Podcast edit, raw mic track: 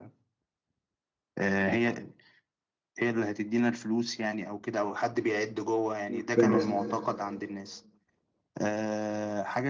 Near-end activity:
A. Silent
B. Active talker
B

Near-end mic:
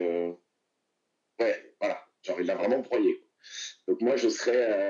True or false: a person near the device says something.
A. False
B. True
A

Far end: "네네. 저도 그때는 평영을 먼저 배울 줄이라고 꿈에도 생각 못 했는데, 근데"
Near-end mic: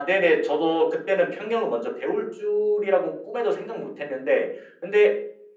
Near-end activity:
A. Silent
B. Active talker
A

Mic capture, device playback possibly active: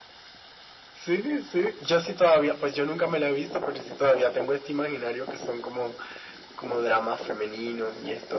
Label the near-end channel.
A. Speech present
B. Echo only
B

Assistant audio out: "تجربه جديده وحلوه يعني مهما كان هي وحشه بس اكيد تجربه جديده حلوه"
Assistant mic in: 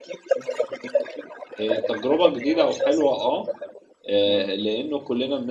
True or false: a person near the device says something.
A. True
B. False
A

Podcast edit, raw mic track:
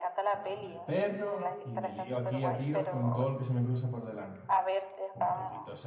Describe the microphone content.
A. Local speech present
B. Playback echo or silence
A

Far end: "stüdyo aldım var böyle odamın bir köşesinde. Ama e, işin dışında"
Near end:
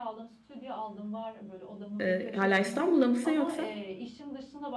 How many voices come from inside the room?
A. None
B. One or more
B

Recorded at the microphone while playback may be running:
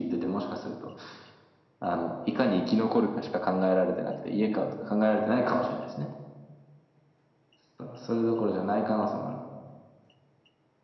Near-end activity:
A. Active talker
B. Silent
B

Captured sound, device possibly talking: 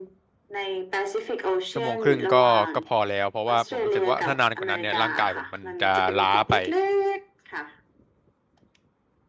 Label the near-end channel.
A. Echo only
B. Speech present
B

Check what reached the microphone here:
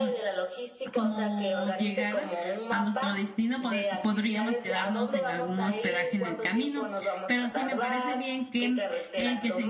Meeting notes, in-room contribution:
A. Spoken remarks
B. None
A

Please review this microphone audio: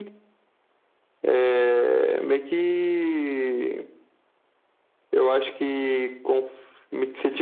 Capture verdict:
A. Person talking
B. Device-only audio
B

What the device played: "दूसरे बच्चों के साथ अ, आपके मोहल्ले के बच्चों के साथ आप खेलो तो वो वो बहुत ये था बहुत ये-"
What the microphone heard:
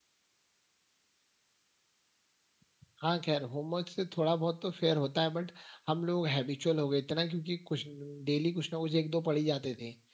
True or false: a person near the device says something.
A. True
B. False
A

